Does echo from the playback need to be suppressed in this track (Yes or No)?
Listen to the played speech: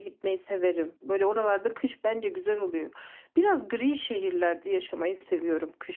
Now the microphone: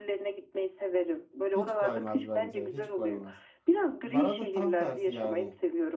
Yes